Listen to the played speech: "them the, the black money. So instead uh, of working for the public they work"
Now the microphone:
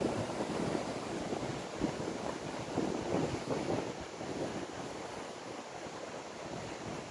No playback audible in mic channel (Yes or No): Yes